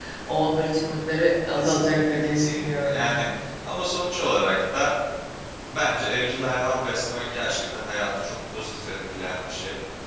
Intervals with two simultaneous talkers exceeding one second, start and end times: 1.6-3.2

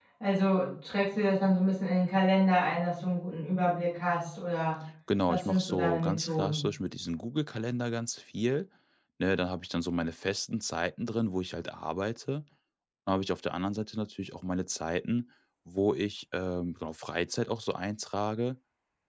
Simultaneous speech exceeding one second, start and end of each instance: 5.3-6.7

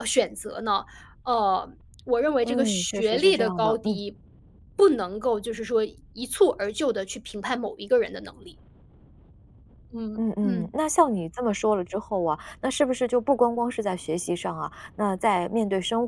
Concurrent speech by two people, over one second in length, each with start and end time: 2.4-4.0

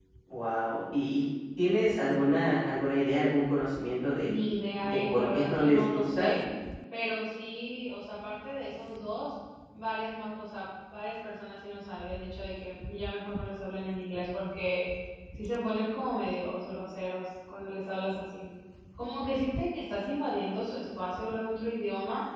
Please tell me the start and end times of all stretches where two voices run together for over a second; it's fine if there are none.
4.8-6.3

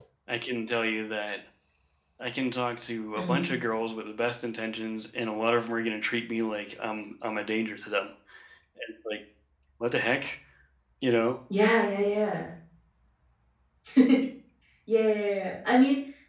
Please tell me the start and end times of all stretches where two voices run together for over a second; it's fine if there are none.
none

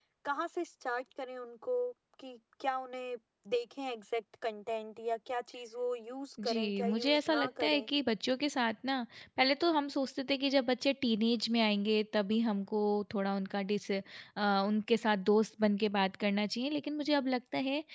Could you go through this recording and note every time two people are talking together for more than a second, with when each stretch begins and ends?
6.4-7.9

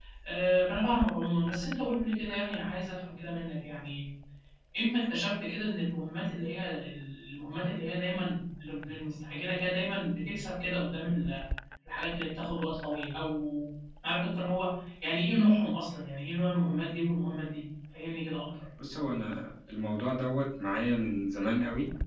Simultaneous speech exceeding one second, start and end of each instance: none

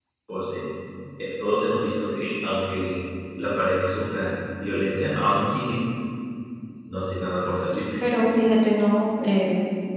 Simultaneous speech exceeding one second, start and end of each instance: none

